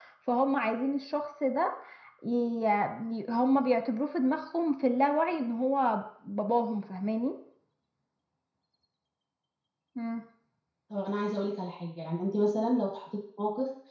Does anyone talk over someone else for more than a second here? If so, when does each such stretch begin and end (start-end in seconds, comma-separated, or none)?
none